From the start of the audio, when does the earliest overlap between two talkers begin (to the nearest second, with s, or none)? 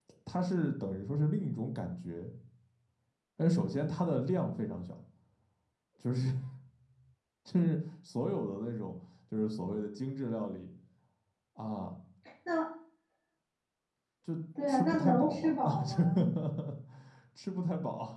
15 s